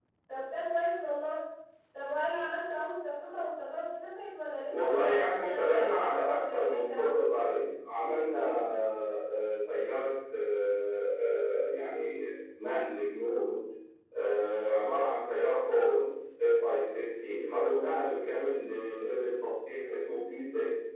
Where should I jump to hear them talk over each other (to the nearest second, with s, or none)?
5 s